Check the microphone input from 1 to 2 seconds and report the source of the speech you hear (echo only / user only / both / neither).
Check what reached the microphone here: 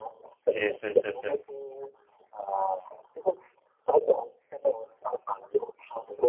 both